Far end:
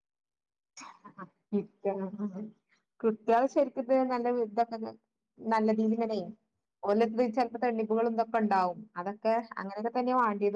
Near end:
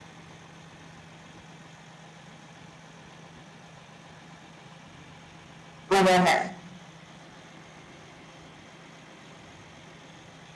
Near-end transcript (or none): അതന്നെ